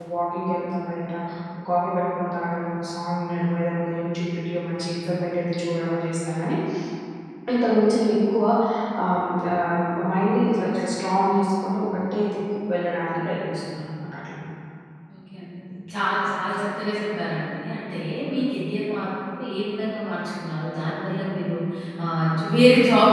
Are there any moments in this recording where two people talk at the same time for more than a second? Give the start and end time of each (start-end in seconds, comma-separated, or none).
none